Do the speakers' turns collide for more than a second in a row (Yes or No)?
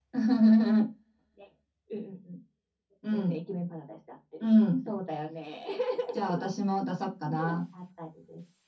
No